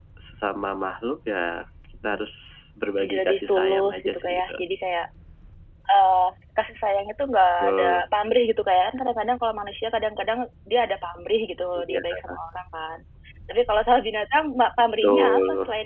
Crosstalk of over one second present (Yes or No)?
Yes